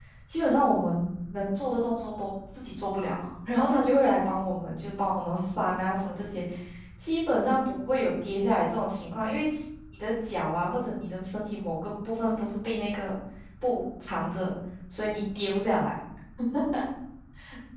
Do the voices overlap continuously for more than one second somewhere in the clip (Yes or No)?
No